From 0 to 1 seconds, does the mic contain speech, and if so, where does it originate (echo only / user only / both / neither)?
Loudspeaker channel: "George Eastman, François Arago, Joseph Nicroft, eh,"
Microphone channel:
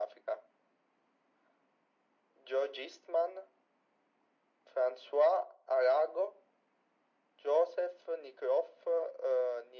echo only